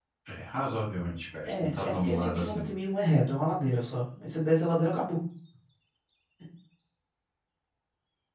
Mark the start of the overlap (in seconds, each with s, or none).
1.4 s